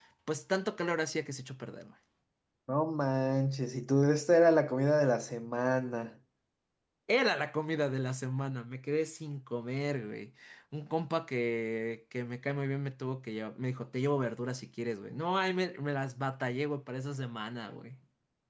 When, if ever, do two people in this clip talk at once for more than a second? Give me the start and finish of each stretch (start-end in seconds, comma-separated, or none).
none